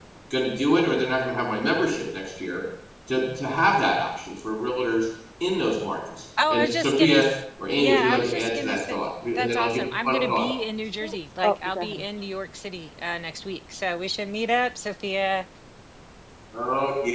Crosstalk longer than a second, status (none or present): present